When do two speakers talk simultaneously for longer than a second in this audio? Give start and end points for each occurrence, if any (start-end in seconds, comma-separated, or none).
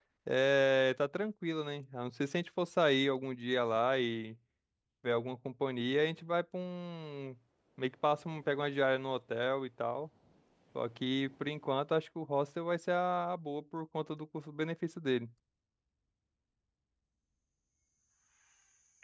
none